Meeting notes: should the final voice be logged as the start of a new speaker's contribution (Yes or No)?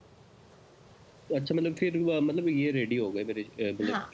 Yes